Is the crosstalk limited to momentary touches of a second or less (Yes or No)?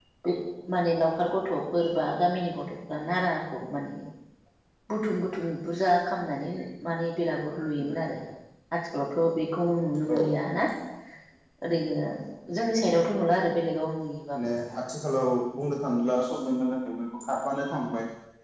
Yes